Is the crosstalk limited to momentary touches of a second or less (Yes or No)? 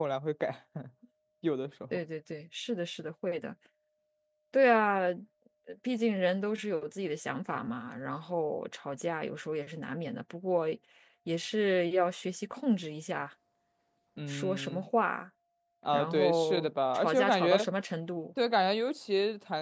No